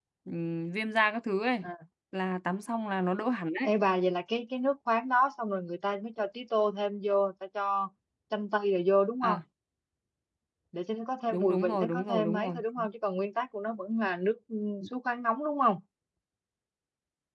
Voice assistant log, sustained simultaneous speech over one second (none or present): present